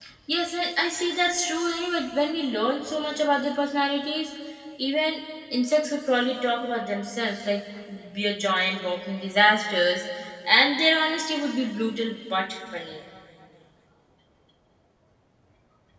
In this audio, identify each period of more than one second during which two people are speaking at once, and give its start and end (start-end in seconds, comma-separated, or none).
none